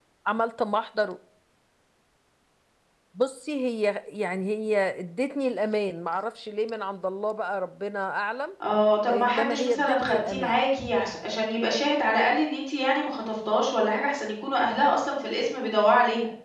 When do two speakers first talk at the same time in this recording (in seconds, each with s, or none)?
9.1 s